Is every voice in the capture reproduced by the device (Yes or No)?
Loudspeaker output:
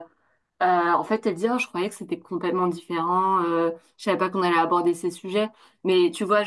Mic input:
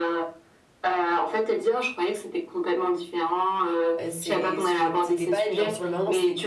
No